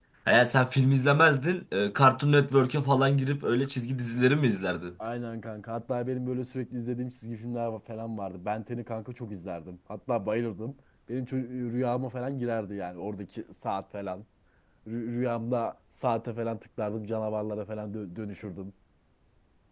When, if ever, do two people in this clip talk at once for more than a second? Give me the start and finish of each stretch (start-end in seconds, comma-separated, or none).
none